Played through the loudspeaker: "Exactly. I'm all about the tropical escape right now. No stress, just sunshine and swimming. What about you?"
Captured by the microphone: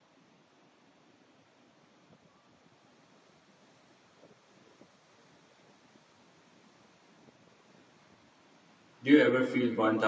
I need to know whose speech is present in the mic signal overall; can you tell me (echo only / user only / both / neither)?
user only